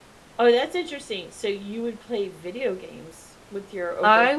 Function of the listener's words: taking over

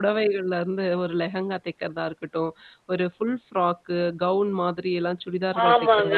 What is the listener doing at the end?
taking over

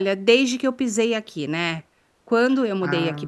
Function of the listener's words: listening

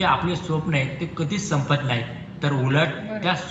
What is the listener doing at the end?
listening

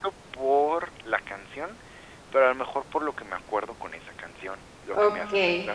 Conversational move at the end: taking over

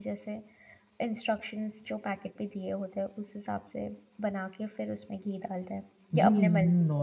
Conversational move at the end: taking over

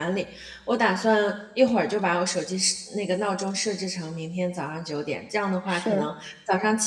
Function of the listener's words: listening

